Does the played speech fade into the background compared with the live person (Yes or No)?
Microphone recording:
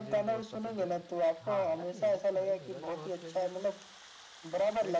No